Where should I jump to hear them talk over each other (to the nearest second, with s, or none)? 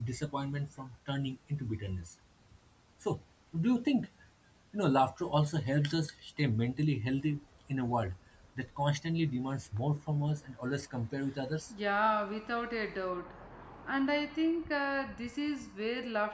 none